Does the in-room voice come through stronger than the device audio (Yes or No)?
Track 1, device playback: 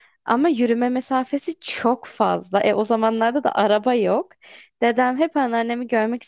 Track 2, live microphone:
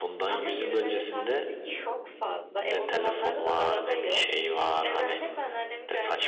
Yes